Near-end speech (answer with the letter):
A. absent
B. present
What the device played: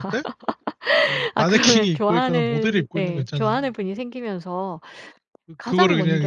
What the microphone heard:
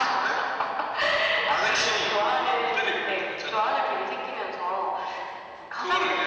A